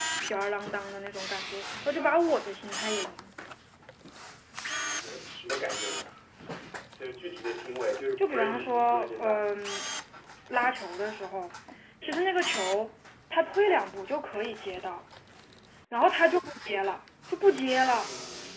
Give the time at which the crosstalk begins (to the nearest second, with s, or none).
8 s